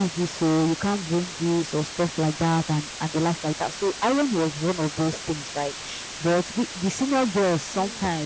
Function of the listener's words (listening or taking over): listening